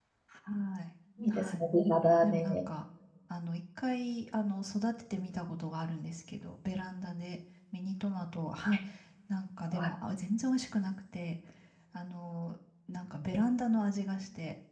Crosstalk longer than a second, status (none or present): none